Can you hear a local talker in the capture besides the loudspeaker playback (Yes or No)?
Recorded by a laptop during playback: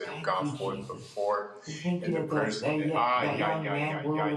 Yes